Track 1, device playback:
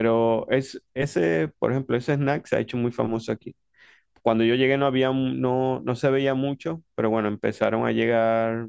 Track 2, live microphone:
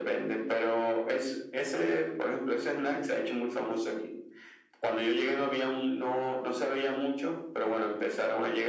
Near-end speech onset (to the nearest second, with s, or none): none